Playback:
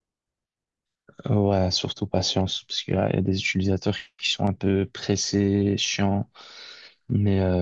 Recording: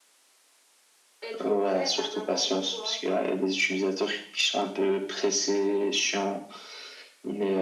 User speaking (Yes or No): Yes